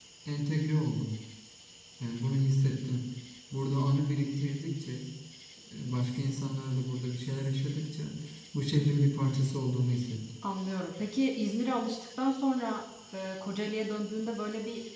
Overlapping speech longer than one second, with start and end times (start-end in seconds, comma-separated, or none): none